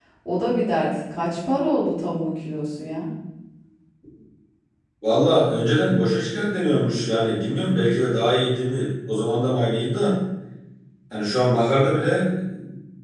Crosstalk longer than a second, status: none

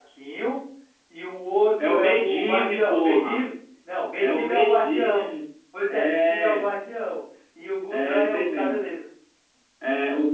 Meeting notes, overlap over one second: present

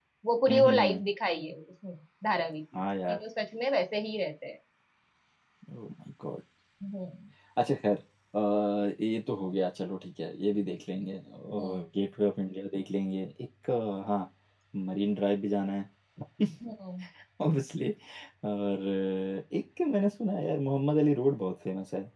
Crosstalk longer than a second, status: none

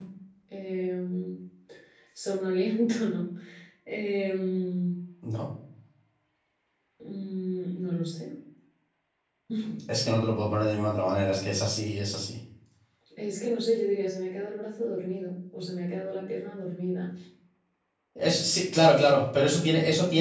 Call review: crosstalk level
none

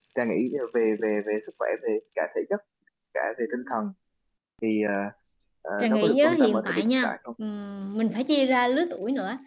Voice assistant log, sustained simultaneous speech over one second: present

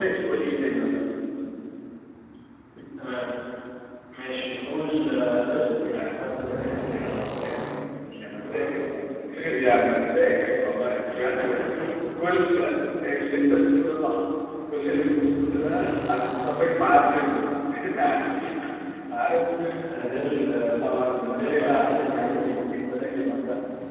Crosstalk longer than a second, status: present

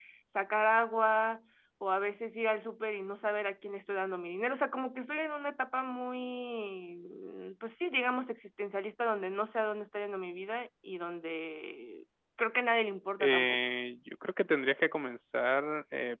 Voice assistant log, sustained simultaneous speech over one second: none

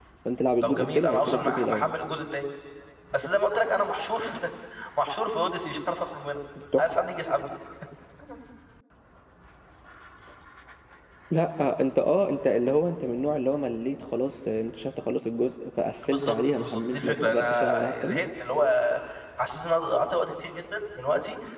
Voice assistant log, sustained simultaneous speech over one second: present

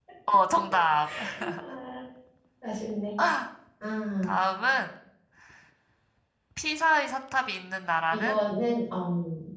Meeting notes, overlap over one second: none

